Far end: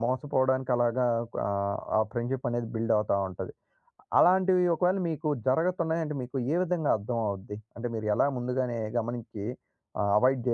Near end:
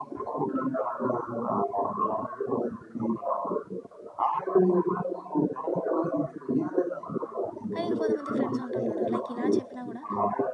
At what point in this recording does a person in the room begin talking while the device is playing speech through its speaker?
7.7 s

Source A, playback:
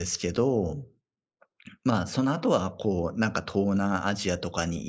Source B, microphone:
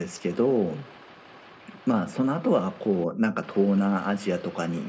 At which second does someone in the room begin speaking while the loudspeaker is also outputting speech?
none

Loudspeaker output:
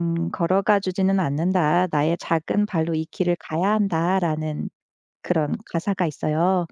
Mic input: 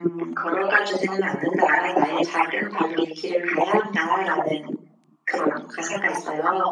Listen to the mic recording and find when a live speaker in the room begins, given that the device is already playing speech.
none

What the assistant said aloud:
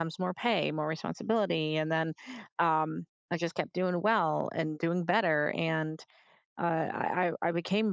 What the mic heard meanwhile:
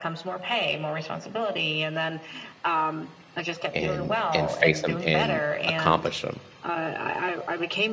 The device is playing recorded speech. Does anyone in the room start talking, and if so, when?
3.7 s

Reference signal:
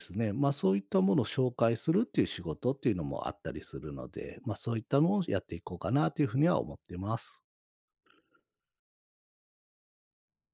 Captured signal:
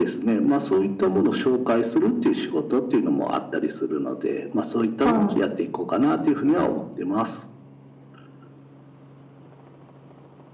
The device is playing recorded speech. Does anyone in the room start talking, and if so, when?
5.0 s

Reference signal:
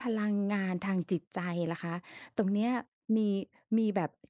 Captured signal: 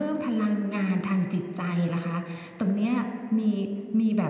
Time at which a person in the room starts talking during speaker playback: none

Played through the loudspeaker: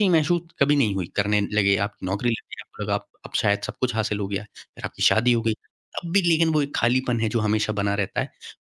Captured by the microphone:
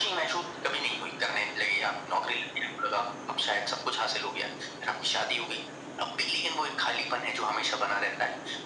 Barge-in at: none

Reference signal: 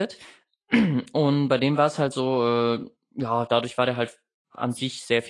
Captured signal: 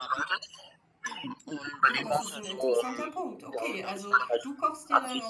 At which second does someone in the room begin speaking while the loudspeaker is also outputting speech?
1.8 s

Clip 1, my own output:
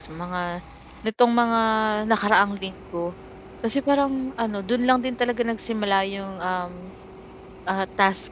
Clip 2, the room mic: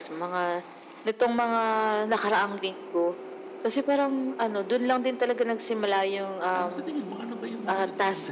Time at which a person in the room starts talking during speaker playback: 6.5 s

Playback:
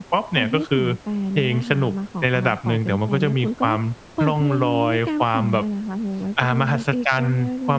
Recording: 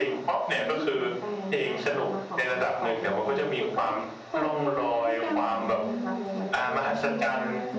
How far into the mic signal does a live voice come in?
5.3 s

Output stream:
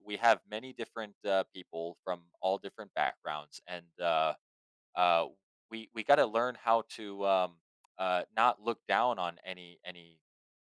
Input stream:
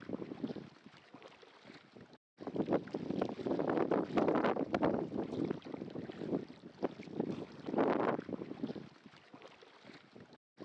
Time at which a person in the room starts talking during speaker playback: none

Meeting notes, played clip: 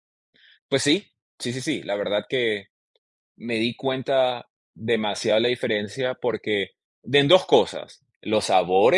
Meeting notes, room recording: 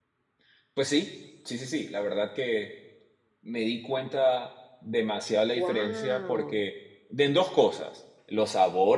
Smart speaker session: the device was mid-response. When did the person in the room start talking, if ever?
5.5 s

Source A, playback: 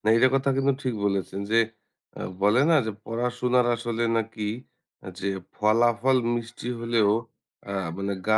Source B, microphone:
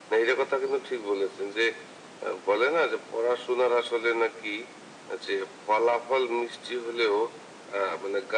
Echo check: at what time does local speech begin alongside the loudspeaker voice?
none

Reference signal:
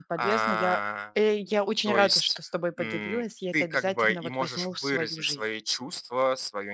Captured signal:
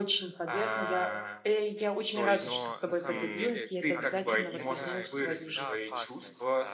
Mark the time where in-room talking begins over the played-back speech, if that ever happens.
2.4 s

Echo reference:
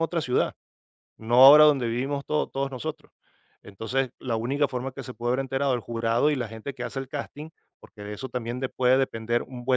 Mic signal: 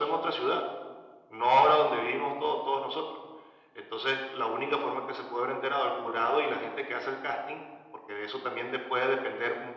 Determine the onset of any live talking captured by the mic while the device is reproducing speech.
none

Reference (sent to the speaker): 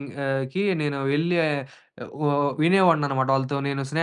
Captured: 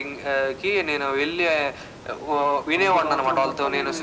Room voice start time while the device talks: 2.8 s

